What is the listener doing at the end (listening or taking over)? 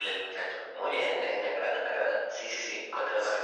taking over